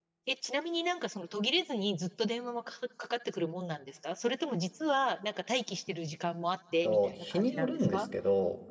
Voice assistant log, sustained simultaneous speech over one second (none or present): present